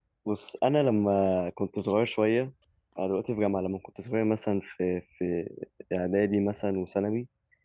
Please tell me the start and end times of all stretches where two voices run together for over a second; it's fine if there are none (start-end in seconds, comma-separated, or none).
none